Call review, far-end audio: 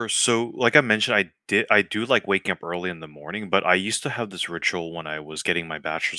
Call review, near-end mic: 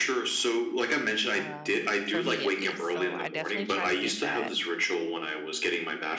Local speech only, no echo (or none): um for me at least, so I definitely try to get that